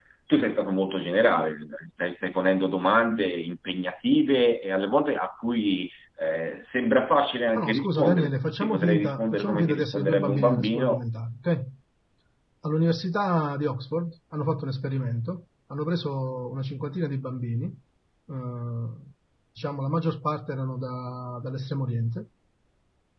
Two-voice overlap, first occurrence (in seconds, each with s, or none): 7.5 s